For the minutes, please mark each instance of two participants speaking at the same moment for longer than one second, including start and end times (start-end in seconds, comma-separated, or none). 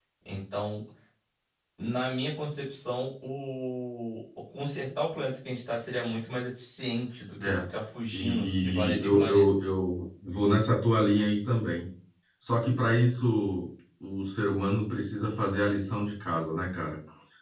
8.1-9.4